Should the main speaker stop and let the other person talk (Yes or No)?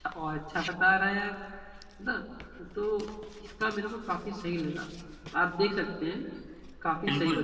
Yes